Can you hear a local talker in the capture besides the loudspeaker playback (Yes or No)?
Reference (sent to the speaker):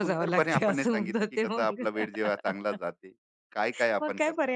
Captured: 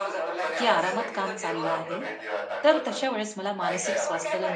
Yes